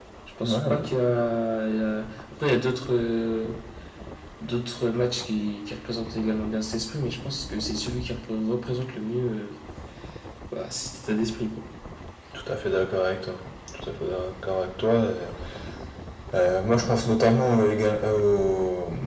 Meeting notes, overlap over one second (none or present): none